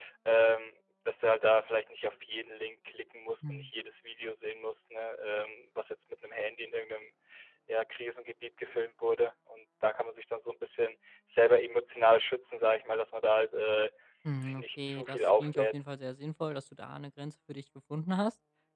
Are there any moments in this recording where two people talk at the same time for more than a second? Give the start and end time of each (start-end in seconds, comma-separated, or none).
14.4-15.7